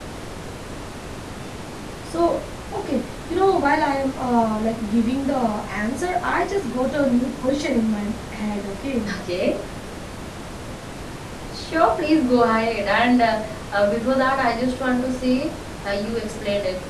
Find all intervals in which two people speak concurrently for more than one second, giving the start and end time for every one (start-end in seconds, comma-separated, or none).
none